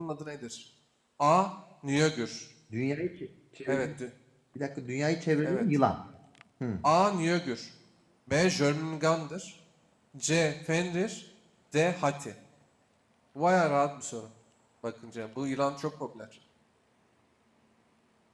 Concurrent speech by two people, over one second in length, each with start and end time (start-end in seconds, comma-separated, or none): none